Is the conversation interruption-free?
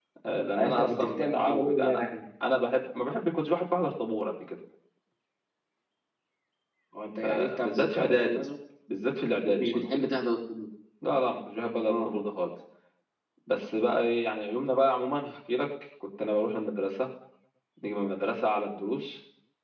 No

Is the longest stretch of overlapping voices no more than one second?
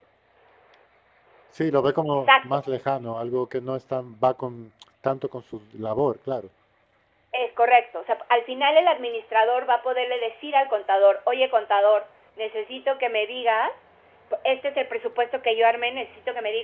Yes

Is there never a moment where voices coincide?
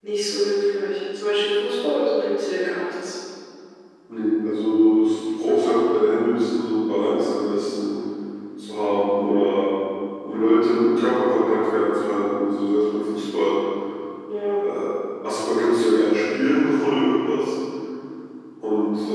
Yes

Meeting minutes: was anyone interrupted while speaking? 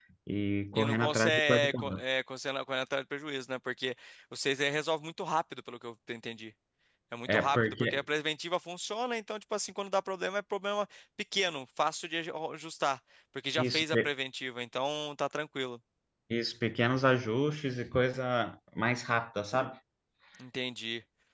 Yes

